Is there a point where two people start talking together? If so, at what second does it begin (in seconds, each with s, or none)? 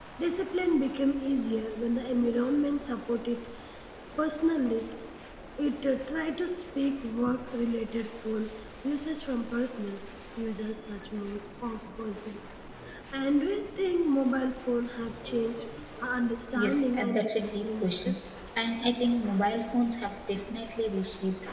16.6 s